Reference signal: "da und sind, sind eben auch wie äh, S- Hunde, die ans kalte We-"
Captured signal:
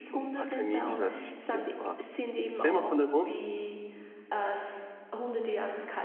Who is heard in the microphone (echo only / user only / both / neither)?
both